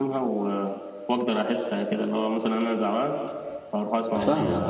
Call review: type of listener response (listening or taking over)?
taking over